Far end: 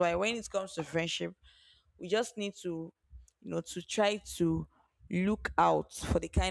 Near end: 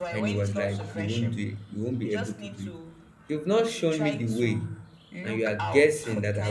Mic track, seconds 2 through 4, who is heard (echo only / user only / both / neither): both